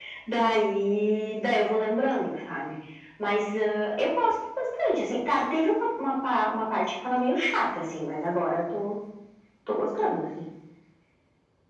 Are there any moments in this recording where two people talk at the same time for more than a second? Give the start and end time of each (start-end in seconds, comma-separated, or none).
none